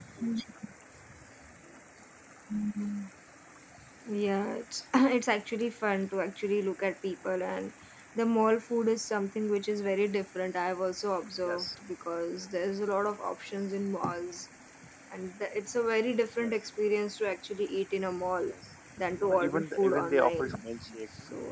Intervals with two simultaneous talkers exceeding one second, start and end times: 19.2-20.6

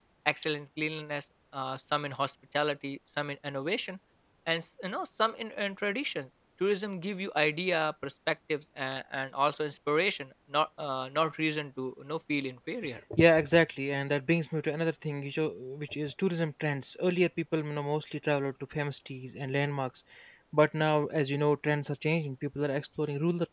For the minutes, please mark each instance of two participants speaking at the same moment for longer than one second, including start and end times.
none

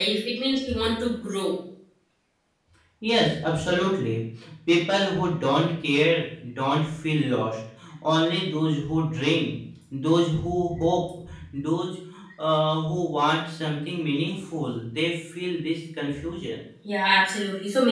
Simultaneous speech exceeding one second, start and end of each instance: none

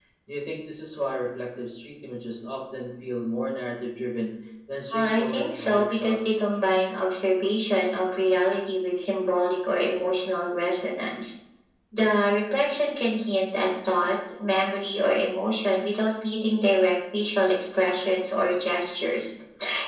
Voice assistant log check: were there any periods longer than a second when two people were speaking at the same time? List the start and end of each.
4.9-6.2

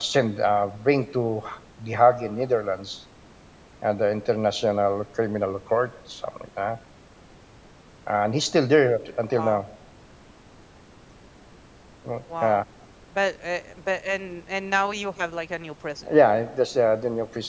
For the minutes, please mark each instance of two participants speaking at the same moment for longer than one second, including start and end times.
none

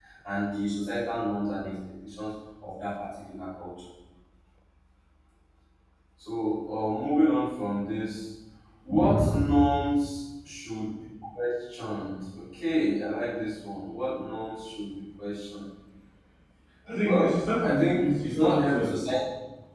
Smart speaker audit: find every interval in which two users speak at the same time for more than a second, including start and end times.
17.0-18.9

